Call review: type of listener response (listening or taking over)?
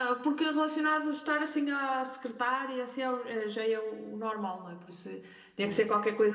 listening